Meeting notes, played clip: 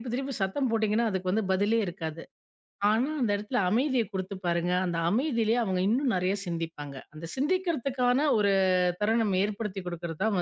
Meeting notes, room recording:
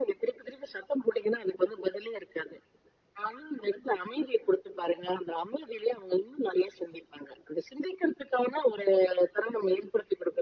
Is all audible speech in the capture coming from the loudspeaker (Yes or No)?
Yes